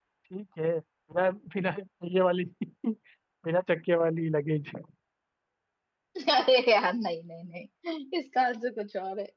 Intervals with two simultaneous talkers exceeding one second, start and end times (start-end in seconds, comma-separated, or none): none